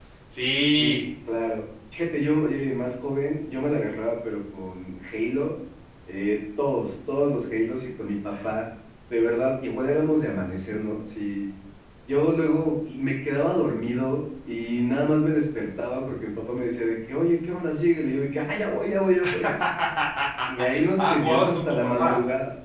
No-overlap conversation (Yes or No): No